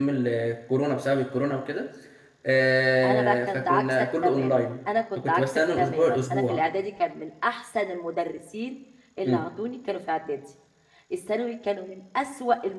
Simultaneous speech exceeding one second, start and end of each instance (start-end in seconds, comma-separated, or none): 3.0-4.6, 5.2-6.6